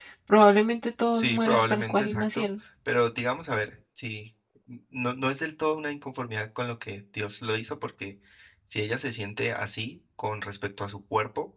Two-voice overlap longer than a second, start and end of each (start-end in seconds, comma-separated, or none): 1.1-2.5